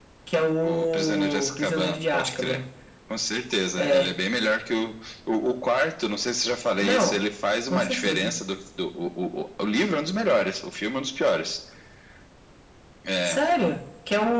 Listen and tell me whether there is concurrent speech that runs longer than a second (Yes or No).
Yes